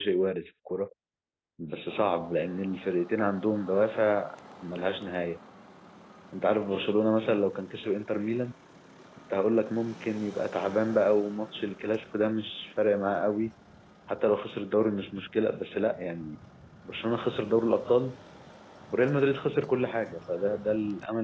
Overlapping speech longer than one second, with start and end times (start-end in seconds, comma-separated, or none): none